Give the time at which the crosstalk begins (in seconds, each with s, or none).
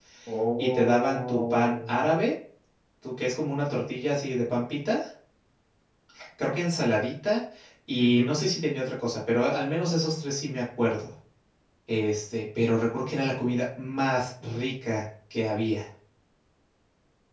0.6 s